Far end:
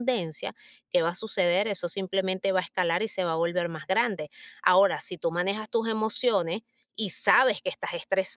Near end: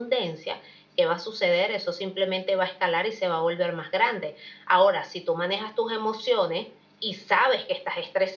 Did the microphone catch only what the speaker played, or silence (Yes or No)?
Yes